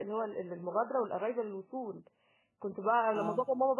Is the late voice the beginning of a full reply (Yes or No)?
No